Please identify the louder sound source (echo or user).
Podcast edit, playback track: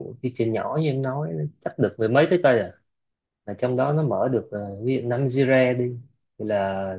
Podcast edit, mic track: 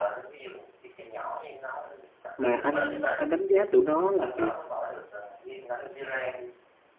user